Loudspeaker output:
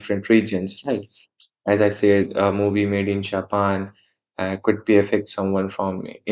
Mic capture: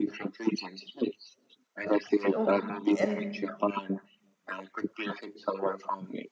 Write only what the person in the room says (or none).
So, and